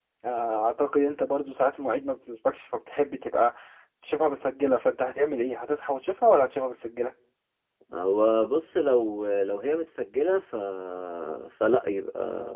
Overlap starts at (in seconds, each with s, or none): none